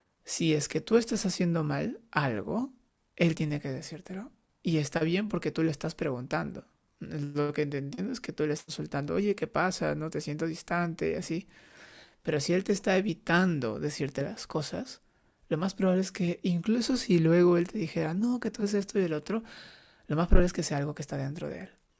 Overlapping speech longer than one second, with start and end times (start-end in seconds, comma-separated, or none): none